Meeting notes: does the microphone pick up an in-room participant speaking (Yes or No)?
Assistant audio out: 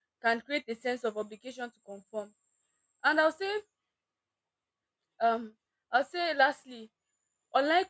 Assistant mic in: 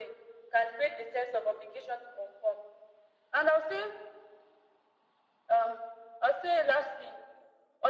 No